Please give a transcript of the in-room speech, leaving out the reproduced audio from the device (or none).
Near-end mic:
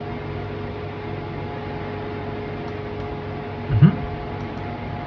hmm